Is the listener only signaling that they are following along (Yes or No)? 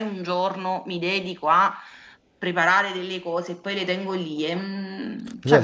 No